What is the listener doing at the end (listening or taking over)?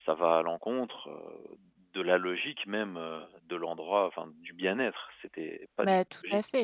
taking over